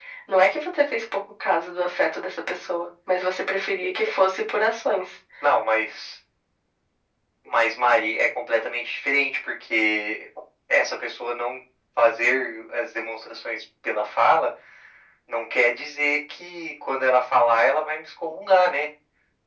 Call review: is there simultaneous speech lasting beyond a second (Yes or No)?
No